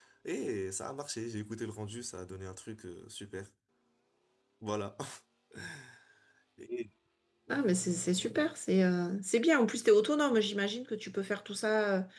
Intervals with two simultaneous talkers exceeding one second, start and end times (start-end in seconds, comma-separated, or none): none